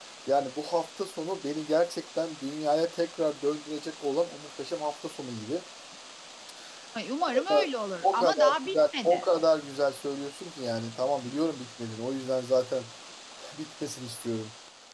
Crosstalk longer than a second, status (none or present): present